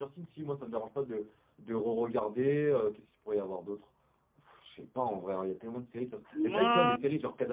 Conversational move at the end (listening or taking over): listening